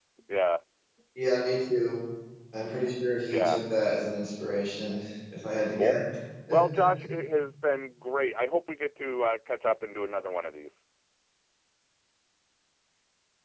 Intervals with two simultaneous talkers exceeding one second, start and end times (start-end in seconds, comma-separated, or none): none